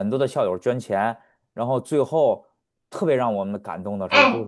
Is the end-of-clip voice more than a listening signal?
Yes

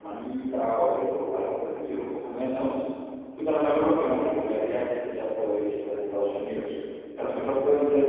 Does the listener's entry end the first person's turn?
No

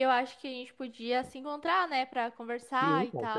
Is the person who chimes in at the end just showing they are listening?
No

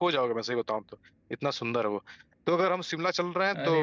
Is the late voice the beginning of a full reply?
No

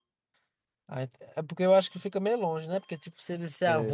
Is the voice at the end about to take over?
No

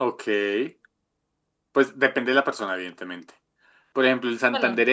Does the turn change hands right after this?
No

